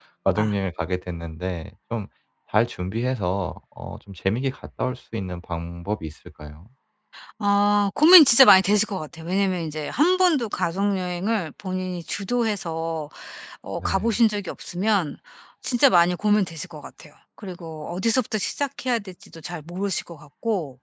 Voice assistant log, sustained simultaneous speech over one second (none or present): none